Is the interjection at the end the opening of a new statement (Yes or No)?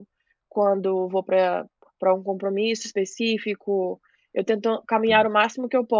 No